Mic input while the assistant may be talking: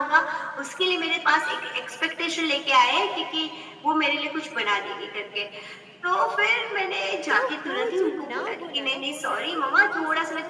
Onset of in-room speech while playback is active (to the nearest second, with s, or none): 7 s